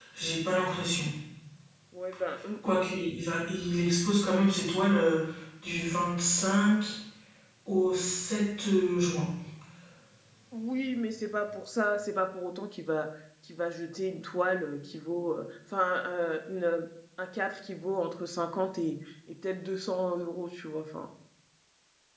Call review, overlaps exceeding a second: none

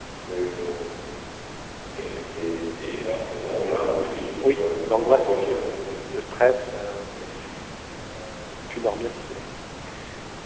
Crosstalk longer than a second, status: present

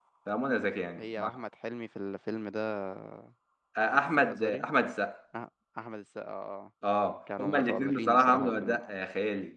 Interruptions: present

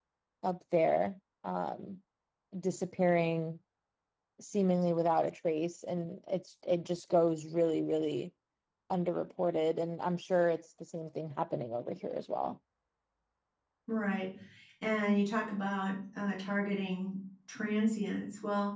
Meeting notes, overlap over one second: none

